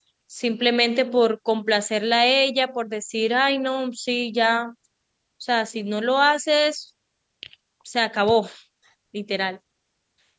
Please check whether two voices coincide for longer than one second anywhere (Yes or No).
No